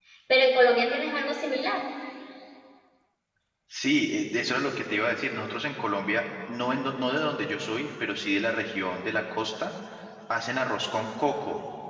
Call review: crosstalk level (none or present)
none